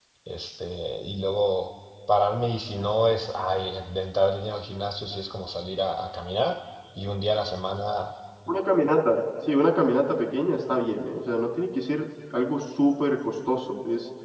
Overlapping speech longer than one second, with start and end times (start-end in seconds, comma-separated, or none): none